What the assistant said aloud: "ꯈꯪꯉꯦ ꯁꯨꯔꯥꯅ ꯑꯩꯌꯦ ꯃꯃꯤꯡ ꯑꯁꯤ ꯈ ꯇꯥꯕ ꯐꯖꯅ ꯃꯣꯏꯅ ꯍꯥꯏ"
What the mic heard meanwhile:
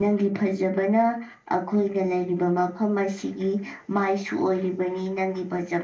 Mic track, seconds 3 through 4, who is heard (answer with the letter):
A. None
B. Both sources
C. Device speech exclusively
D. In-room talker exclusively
D